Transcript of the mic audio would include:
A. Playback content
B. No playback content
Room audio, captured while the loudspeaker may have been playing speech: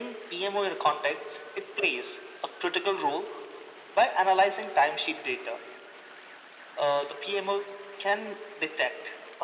A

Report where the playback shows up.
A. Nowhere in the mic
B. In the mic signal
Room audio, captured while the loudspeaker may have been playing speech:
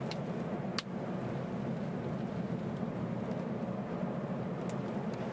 A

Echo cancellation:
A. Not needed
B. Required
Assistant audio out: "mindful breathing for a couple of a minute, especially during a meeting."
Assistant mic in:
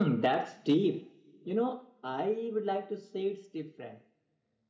A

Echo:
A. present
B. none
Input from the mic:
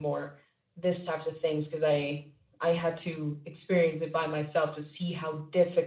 B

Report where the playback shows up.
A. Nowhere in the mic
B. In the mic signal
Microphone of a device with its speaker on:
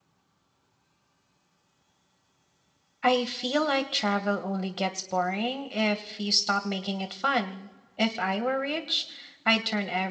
A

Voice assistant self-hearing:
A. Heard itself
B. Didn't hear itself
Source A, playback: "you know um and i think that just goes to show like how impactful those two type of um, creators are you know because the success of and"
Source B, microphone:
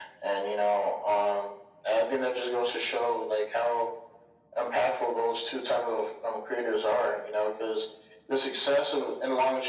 A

